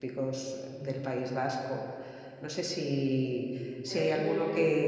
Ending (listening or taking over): listening